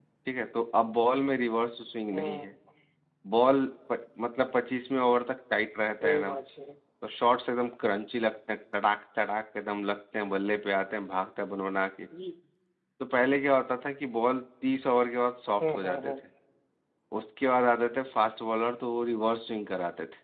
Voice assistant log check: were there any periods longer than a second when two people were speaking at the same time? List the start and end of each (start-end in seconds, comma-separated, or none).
none